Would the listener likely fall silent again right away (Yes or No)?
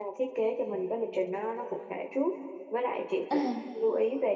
Yes